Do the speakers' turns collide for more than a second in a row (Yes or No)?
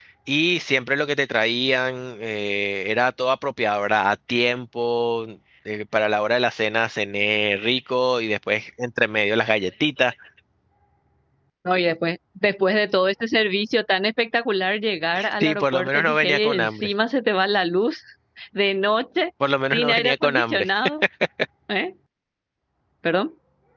Yes